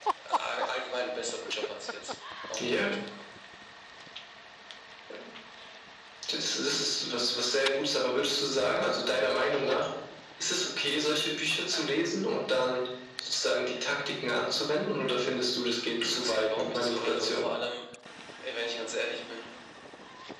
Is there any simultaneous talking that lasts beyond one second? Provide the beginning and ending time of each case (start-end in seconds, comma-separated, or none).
16.2-17.5